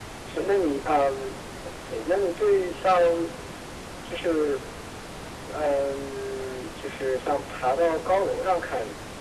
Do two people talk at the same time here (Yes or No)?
No